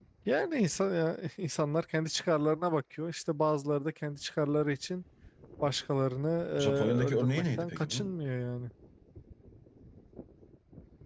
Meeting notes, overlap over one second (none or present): present